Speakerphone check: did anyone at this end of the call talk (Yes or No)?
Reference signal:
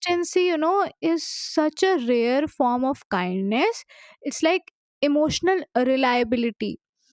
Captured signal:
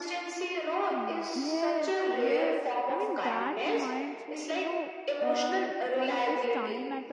Yes